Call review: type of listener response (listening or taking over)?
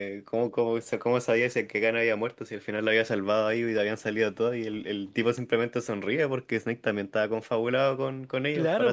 taking over